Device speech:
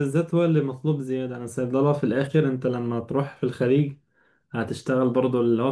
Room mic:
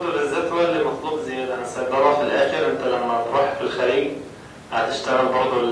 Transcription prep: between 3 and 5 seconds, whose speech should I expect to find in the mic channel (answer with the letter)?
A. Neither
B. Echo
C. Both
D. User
B